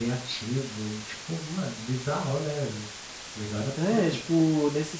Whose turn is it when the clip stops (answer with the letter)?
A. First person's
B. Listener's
B